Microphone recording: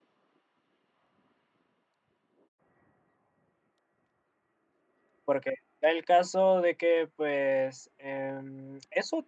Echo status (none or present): none